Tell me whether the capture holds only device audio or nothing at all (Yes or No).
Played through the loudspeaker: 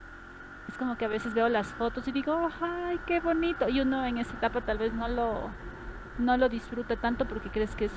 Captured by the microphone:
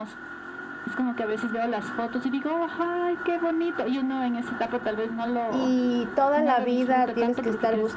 No